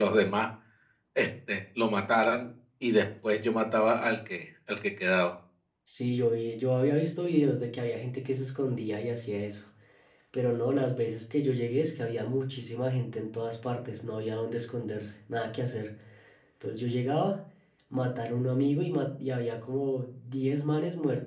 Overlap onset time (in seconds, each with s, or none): none